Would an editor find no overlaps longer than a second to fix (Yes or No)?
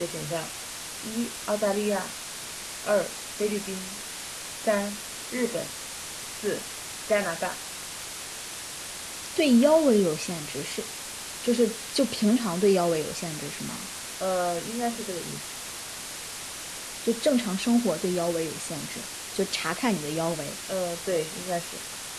Yes